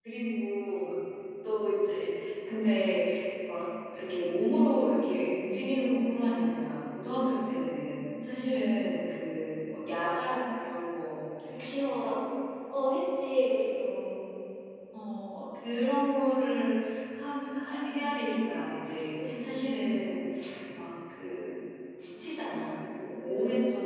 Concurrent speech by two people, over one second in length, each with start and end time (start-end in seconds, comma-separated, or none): none